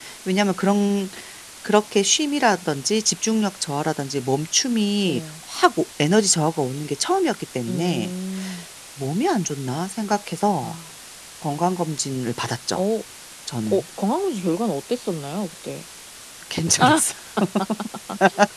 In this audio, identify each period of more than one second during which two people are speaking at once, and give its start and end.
none

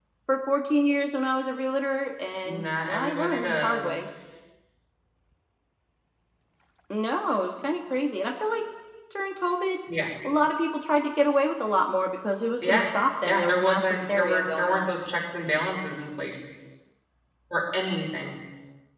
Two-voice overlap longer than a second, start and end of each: 2.4-3.9, 13.2-14.9

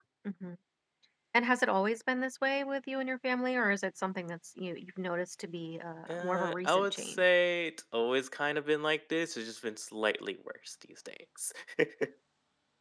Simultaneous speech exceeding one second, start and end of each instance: 6.1-7.3

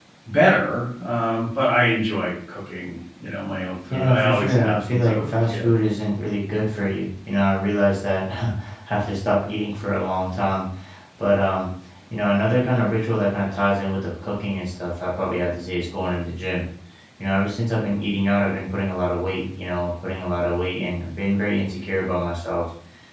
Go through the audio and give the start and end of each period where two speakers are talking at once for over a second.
3.9-5.7

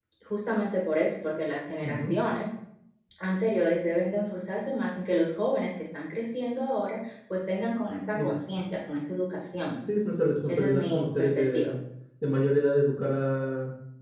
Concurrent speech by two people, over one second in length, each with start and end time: 10.5-11.7

